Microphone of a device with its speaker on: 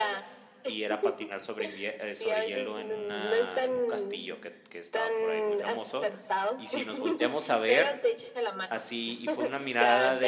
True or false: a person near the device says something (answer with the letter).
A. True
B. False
A